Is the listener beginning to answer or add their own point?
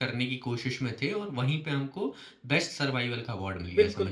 Yes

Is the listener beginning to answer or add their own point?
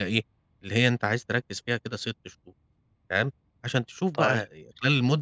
No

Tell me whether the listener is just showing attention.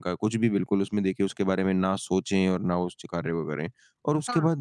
Yes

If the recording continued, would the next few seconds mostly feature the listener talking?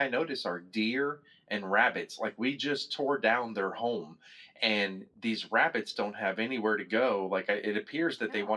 No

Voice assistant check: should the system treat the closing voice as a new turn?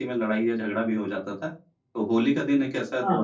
No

